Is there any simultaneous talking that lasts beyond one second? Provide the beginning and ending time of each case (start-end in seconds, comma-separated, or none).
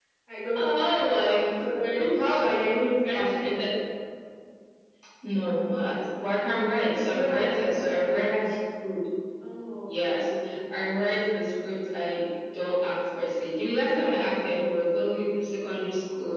7.1-8.5